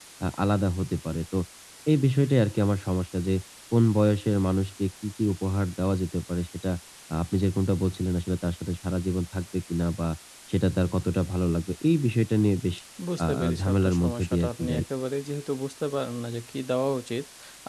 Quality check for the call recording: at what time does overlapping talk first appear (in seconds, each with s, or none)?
13.2 s